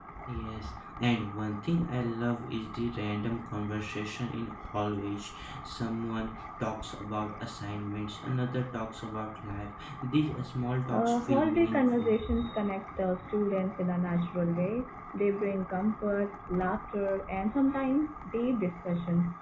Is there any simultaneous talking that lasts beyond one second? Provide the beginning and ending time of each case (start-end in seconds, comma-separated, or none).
10.9-12.2